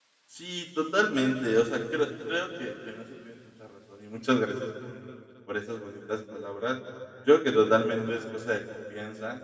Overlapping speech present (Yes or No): No